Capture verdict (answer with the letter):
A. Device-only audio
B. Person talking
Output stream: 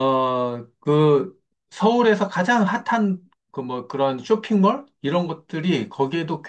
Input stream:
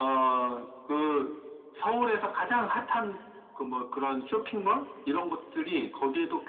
A